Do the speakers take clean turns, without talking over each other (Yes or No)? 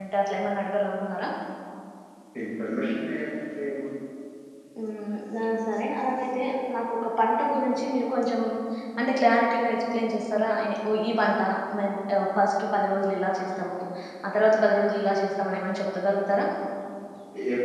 Yes